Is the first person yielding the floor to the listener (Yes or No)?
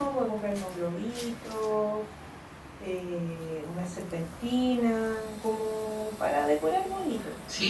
Yes